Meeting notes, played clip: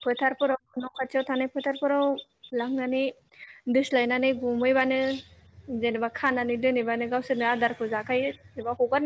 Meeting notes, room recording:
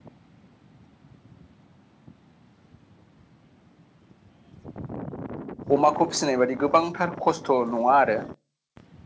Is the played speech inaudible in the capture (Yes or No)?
Yes